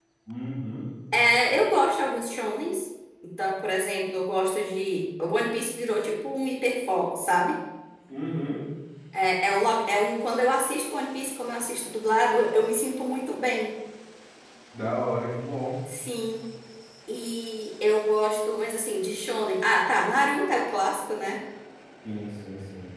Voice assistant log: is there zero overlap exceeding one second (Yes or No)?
Yes